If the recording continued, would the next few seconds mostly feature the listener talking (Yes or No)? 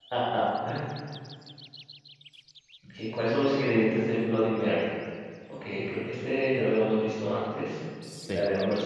Yes